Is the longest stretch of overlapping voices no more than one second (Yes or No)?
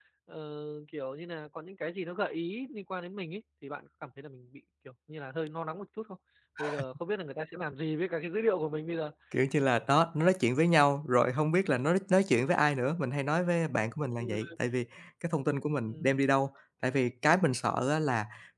Yes